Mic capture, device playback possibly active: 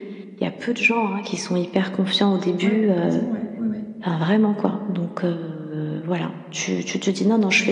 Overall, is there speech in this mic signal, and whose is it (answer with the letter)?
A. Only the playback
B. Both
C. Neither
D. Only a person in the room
B